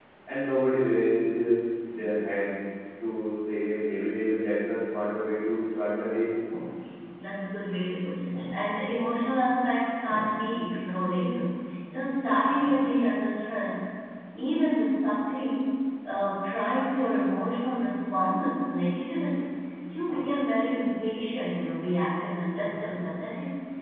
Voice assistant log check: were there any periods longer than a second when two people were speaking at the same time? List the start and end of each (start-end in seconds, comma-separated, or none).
none